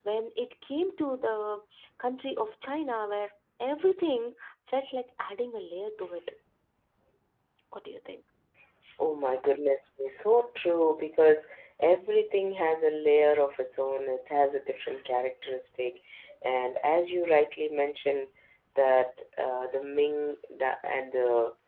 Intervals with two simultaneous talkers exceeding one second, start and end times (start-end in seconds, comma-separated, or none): none